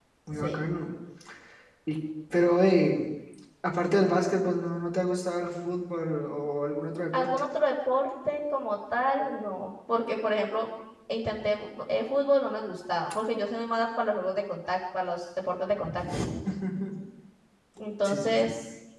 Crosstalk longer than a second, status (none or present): none